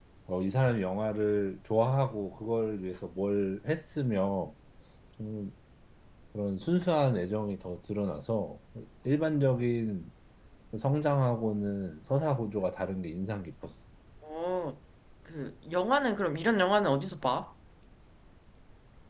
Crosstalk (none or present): none